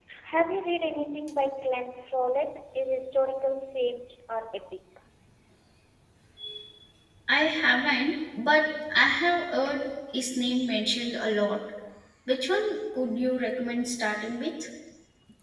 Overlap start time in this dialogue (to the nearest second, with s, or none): none